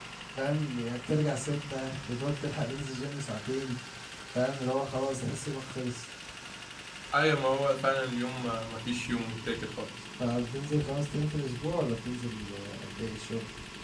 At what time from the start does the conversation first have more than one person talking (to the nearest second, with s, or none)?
none